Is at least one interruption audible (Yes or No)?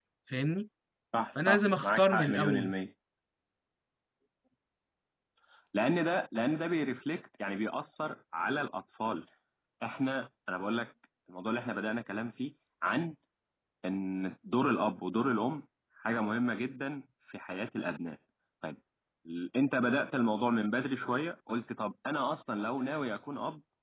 Yes